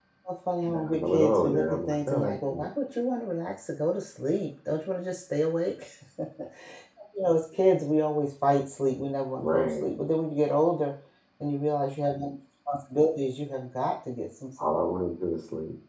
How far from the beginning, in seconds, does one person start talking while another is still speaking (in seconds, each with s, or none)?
0.6 s